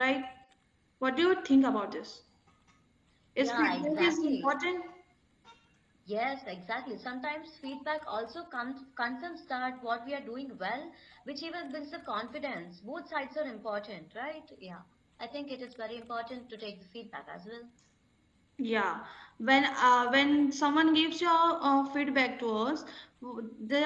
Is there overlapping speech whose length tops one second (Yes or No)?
Yes